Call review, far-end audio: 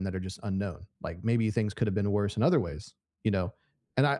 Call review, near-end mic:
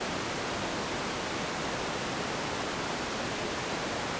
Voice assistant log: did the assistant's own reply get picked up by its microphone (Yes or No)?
No